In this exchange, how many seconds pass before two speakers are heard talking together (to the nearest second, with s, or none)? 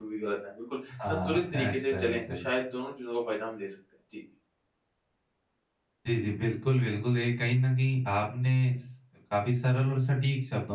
1 s